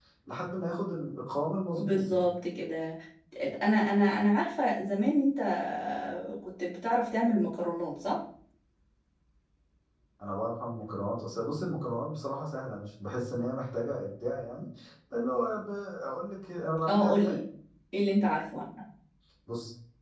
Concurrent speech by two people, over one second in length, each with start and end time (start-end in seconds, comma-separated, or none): none